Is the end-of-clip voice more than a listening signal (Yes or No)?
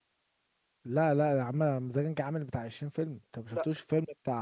No